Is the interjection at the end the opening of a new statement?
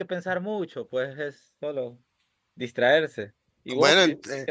Yes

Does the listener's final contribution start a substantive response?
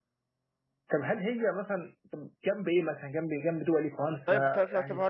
Yes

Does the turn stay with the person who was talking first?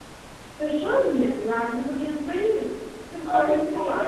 No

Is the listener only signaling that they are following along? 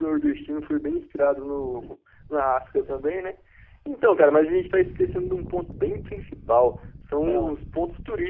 Yes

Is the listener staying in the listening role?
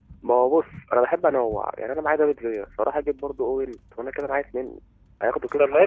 No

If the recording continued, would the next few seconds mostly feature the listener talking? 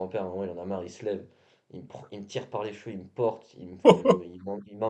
No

